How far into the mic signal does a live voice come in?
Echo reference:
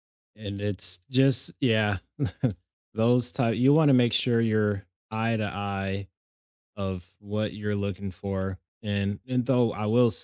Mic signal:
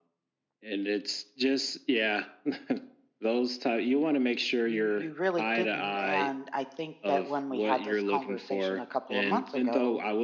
5 s

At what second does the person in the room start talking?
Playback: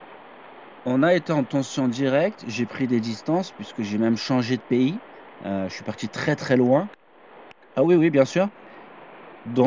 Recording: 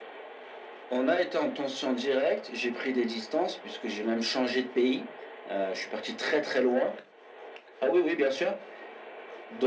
none

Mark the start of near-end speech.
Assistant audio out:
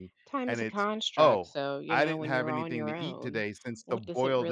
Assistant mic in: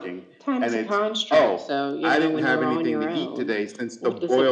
none

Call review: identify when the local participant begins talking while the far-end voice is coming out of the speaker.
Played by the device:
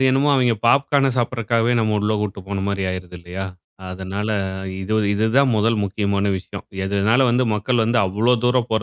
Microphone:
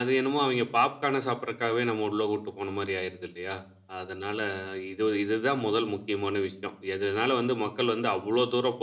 none

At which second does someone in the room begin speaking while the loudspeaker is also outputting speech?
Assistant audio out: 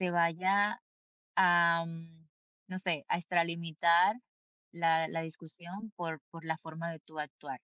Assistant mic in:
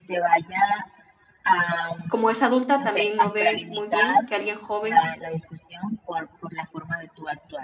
2 s

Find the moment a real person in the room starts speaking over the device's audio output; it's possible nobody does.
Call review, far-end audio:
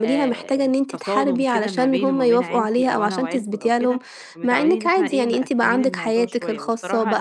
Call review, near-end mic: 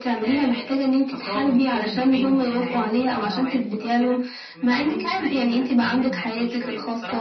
none

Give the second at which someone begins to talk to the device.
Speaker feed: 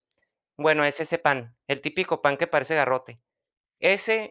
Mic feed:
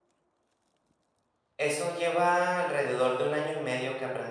2 s

